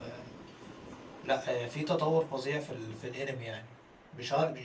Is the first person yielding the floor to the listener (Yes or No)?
No